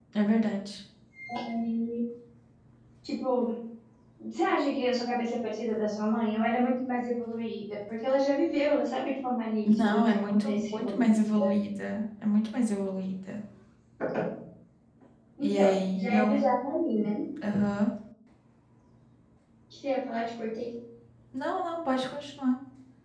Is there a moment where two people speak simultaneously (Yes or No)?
Yes